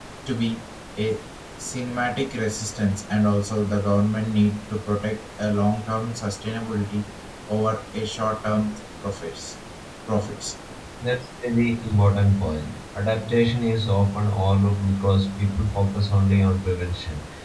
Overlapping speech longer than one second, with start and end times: none

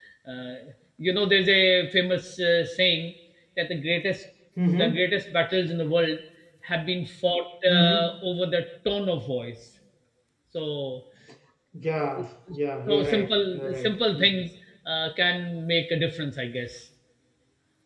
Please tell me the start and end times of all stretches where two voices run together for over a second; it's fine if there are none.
12.9-14.3

